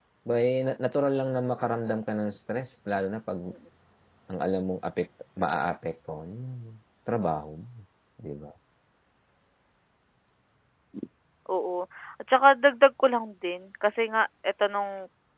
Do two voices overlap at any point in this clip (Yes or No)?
No